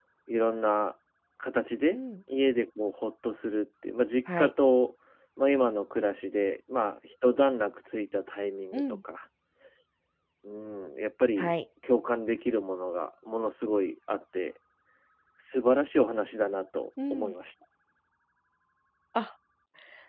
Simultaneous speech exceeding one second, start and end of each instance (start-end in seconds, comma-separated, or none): none